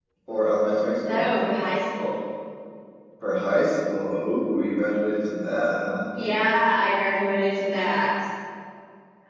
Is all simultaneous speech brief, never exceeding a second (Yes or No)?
Yes